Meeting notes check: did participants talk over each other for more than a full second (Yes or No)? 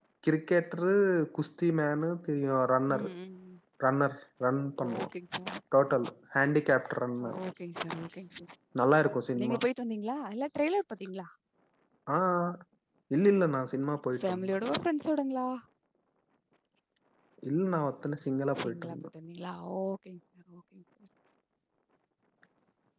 No